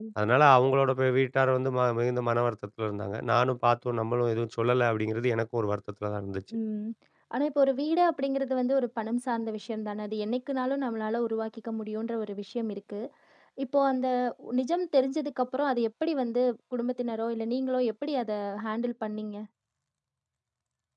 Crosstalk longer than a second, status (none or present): none